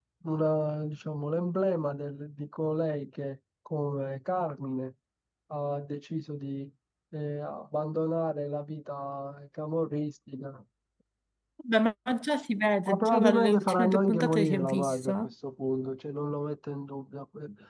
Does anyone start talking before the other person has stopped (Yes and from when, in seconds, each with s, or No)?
Yes, from 12.8 s